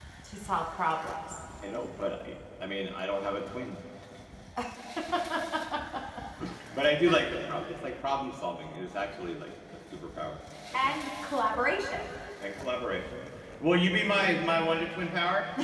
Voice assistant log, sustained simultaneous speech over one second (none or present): none